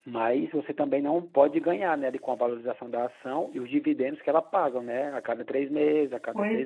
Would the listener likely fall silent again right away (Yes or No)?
Yes